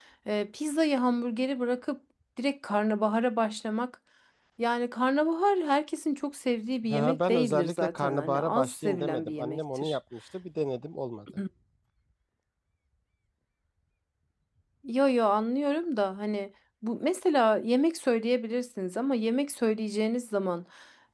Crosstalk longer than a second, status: present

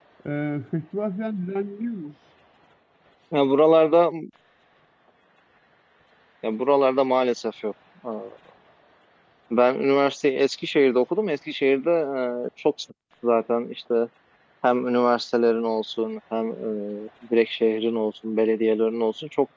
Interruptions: none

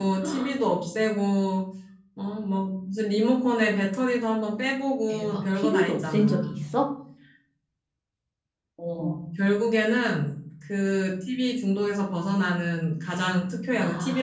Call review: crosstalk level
present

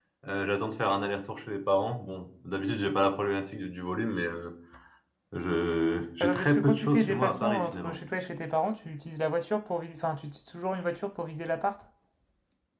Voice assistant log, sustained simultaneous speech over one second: present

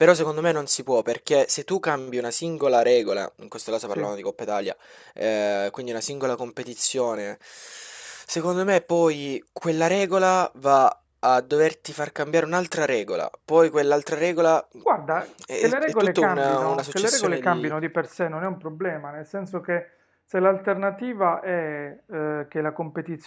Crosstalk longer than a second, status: present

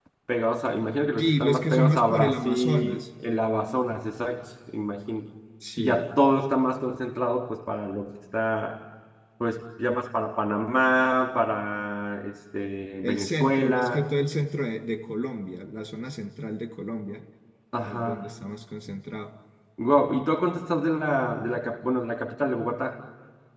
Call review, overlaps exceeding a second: present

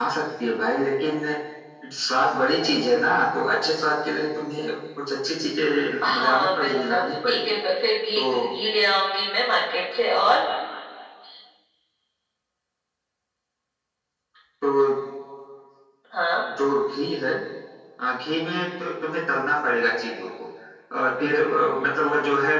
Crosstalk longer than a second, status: present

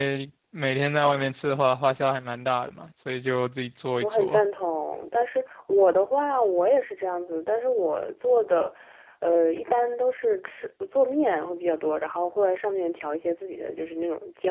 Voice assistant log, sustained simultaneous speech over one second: none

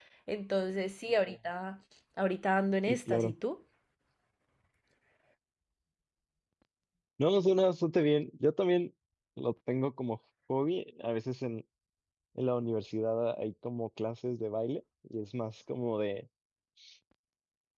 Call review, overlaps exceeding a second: none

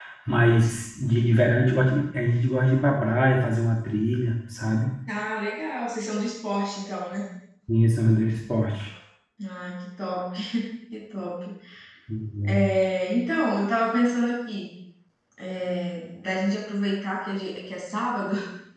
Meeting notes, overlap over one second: none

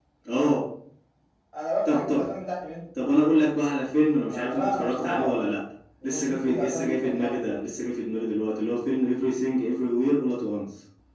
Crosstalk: present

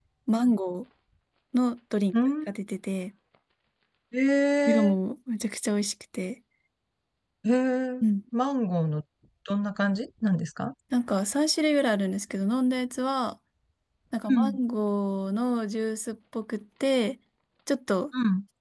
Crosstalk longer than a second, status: none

